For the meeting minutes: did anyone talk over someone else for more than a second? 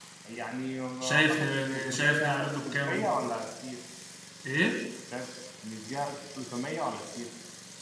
Yes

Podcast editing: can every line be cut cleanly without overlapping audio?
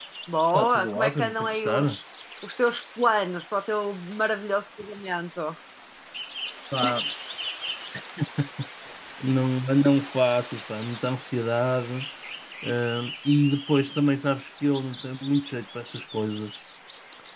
No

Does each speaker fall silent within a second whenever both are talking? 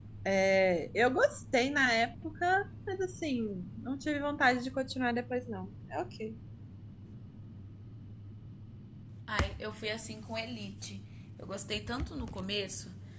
Yes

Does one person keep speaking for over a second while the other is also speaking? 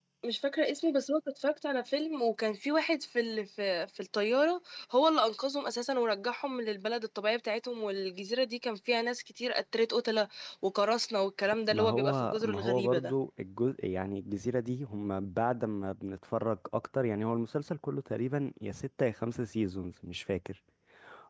Yes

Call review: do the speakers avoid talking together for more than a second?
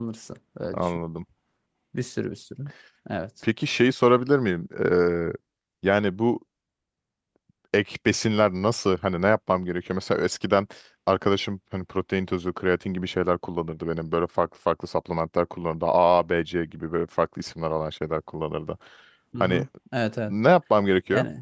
Yes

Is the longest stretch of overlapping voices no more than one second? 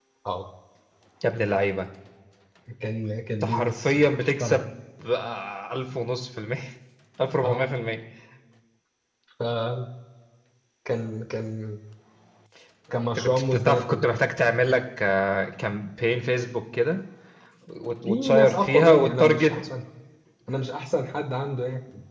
No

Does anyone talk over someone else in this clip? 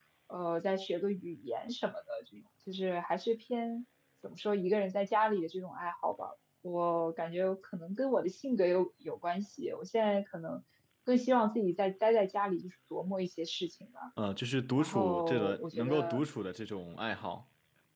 Yes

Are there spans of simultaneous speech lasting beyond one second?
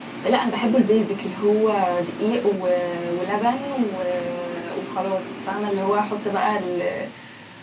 No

